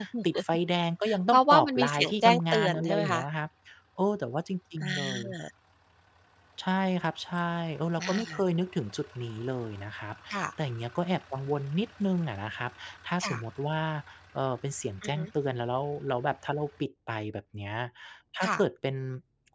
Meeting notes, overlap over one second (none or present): present